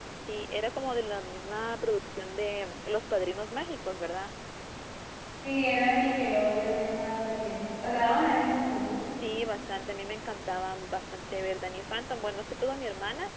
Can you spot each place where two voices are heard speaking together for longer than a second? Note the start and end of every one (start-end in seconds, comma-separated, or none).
none